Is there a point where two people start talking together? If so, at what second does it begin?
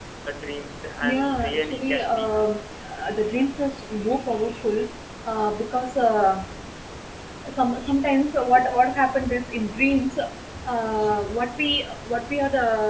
1 s

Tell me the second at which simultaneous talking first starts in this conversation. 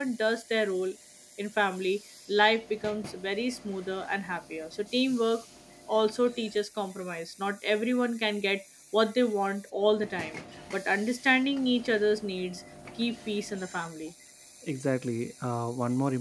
none

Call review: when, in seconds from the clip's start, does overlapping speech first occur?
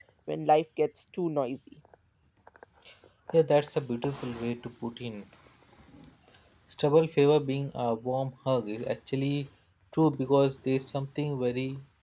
none

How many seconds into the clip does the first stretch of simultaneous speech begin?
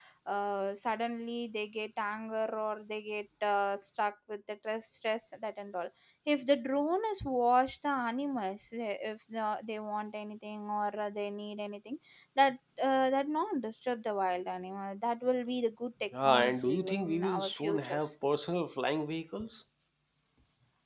16 s

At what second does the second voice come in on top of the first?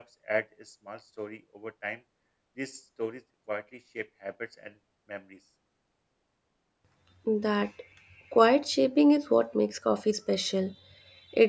none

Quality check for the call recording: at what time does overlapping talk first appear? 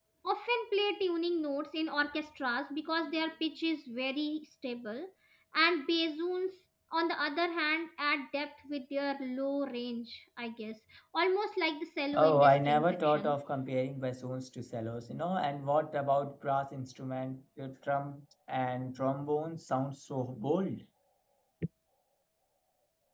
12 s

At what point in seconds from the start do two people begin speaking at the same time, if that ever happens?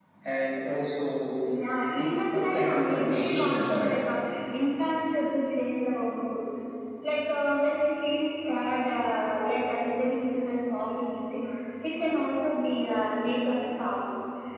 2 s

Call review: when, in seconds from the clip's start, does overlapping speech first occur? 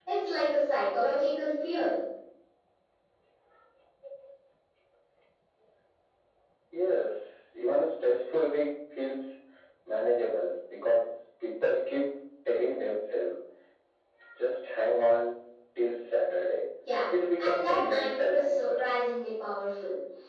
17 s

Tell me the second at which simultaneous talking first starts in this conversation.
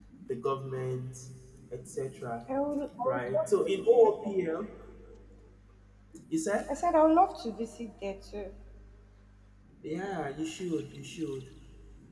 3 s

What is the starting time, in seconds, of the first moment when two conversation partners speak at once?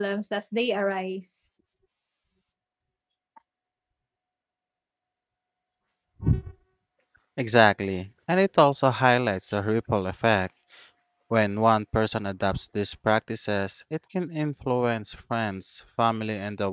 none

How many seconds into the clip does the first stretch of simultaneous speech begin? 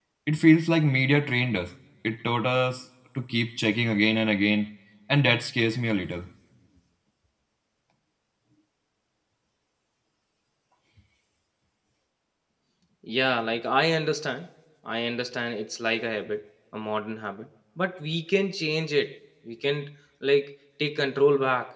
none

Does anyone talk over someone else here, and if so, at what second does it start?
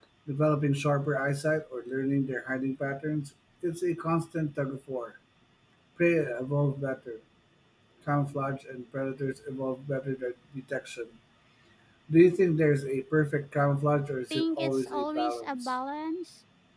14 s

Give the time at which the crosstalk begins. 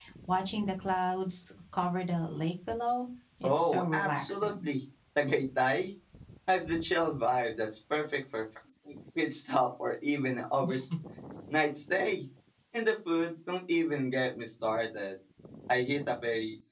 3 s

